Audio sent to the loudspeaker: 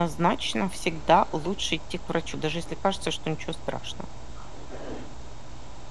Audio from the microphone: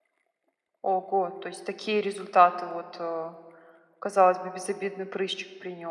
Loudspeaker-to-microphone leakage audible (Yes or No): No